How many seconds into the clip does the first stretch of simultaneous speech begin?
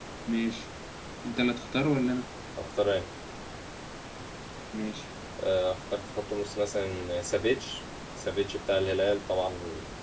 none

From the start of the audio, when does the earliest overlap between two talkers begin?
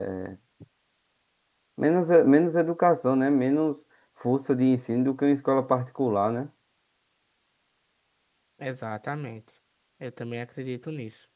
none

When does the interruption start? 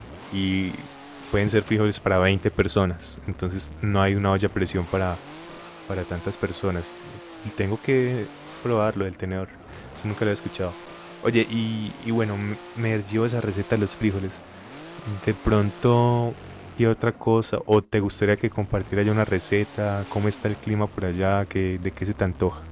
none

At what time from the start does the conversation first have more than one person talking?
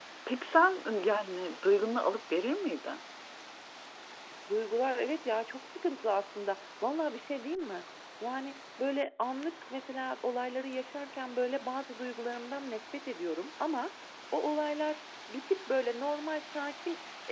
none

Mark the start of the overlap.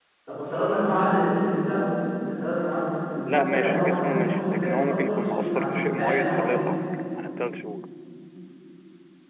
3.3 s

